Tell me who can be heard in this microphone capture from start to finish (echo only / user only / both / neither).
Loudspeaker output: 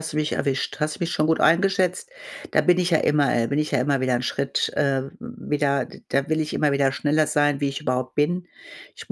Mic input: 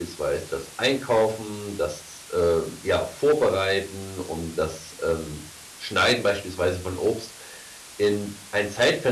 user only